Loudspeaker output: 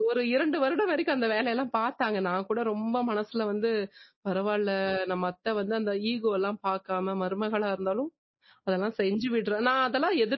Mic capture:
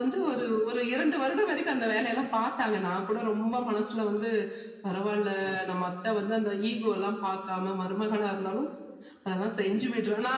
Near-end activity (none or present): none